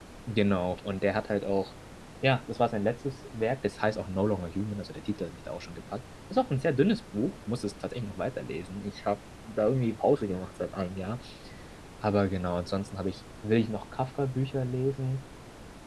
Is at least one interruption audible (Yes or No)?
No